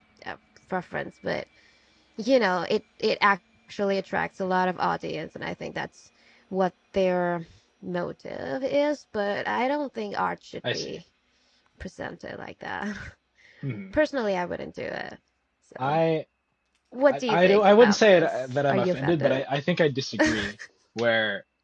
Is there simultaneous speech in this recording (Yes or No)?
Yes